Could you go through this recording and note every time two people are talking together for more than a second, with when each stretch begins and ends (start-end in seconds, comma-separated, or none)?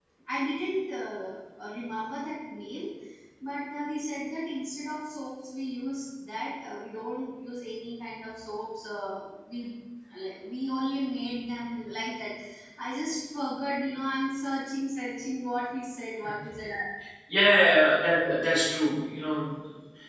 none